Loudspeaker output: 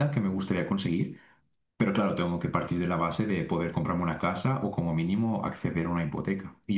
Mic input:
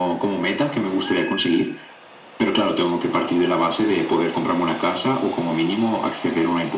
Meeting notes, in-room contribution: none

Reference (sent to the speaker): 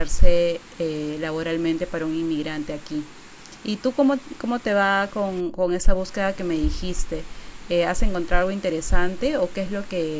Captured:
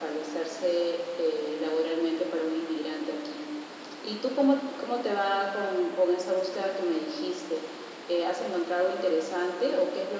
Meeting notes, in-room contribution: none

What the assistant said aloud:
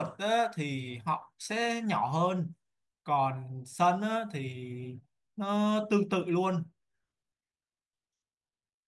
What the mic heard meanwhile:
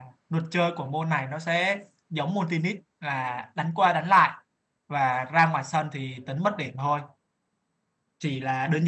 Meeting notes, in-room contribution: present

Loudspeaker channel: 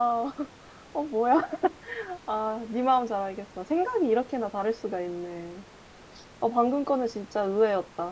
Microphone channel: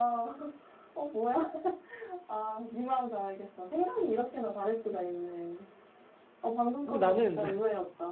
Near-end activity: present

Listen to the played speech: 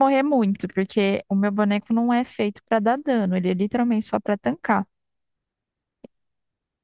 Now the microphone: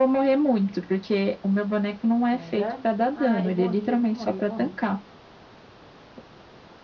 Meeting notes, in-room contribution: present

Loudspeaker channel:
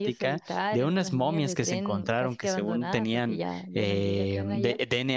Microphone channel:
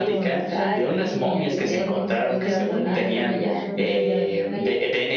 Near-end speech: present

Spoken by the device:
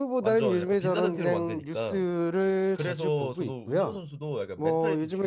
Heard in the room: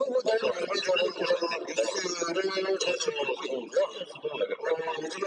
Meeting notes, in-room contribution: none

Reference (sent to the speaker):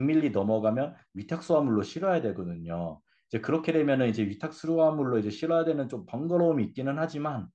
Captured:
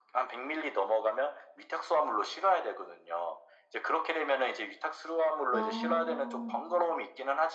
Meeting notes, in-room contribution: present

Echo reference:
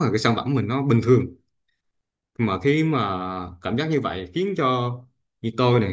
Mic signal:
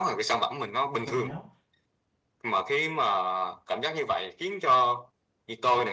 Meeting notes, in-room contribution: present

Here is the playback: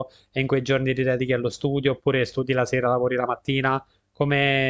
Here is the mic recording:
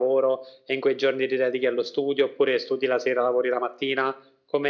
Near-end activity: none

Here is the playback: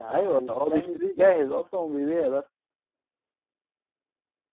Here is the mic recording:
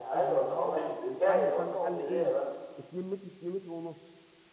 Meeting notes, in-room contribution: present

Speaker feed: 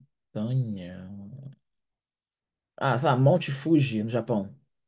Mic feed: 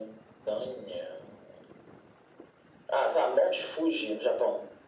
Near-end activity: none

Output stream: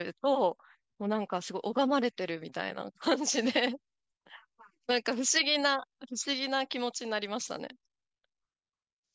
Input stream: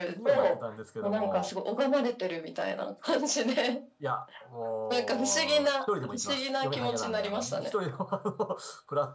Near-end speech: present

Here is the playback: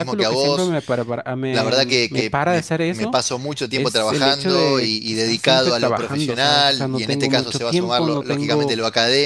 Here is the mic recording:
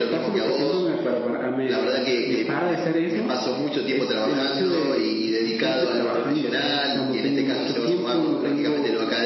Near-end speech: none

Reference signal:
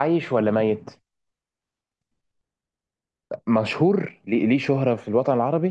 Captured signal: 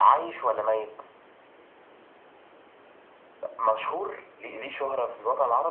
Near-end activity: none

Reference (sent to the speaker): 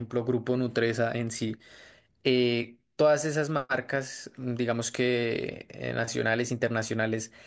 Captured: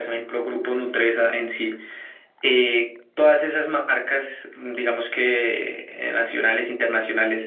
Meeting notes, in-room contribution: none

